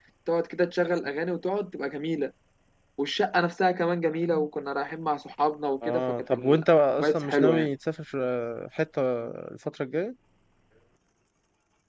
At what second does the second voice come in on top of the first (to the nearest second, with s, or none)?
6 s